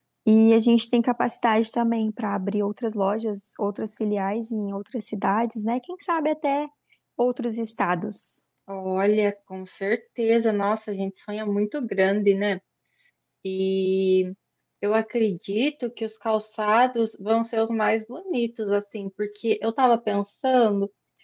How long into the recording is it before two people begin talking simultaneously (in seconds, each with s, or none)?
none